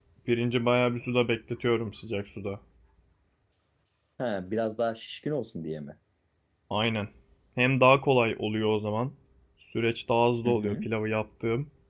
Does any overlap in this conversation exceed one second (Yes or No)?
No